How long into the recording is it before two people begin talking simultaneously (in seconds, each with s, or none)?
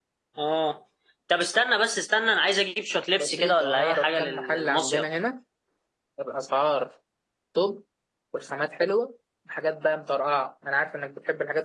3.2 s